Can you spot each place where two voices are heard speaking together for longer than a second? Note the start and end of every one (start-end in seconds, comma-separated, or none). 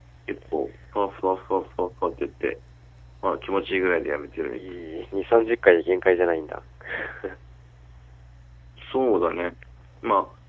none